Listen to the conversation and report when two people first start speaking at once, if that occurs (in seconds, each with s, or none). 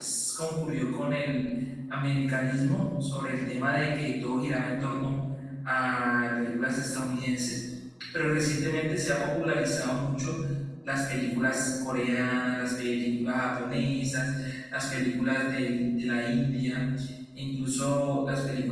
none